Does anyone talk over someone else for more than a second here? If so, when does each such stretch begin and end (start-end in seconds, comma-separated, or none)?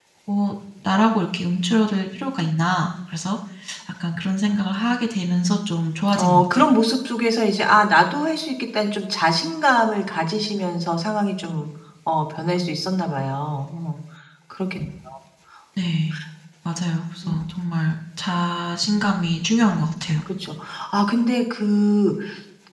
none